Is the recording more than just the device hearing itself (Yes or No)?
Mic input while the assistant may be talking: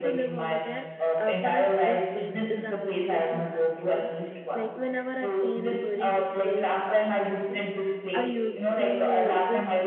Yes